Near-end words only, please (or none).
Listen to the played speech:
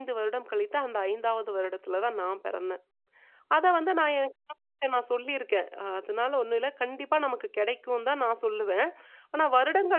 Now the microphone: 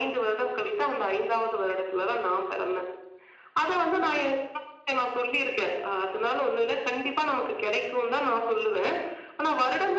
none